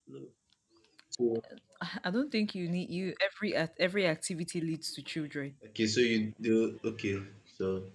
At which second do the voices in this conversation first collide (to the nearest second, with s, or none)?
none